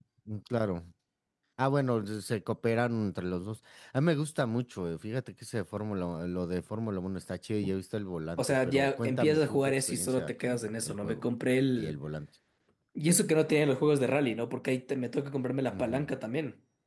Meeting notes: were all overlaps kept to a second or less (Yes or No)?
No